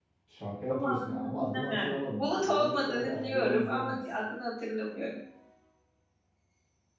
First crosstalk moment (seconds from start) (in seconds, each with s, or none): 0.7 s